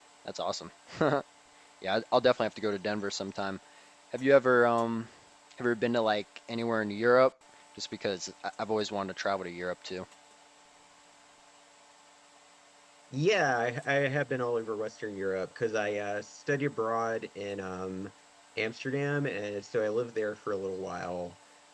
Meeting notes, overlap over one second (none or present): none